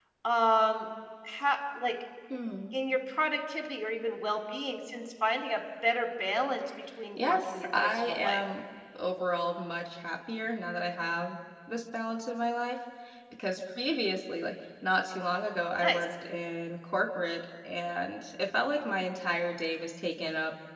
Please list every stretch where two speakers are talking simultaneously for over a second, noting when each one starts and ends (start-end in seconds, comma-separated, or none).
7.2-8.4